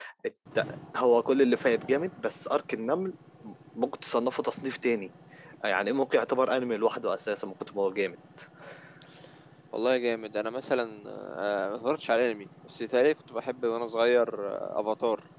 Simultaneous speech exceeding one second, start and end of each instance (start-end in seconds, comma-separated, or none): none